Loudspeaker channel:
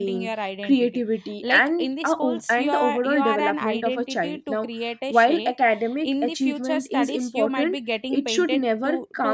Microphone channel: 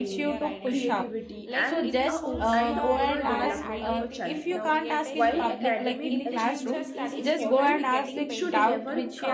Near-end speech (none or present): present